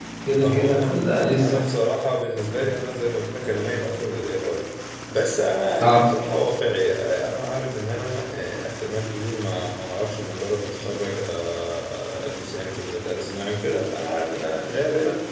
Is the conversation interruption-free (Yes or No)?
No